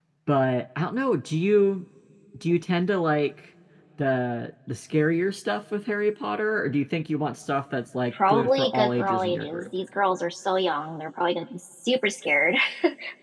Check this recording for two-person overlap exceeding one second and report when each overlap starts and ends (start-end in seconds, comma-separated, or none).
8.3-9.7